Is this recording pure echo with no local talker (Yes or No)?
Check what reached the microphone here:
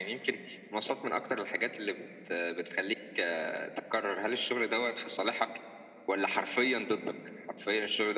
Yes